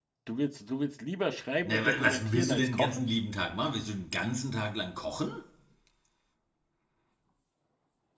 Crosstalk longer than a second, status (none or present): present